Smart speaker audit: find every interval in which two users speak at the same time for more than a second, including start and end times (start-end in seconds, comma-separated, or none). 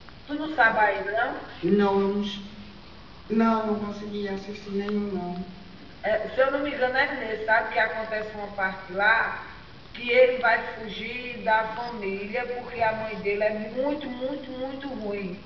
none